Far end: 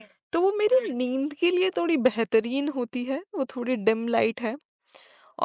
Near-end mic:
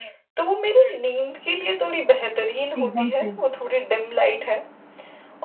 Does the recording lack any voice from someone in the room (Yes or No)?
No